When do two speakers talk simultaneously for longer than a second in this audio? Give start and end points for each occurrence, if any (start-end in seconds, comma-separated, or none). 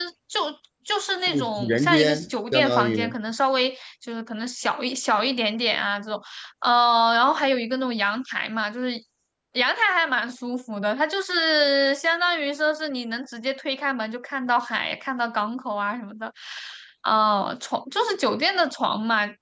1.2-3.0